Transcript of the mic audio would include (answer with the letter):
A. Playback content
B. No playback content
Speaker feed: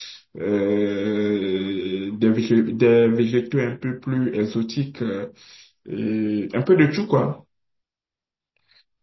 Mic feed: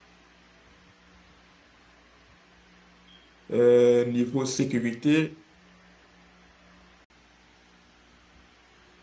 B